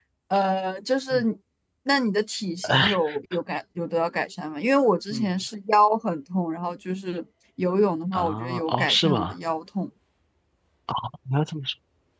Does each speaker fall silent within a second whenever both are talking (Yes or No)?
No